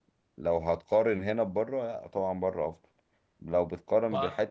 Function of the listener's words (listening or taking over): listening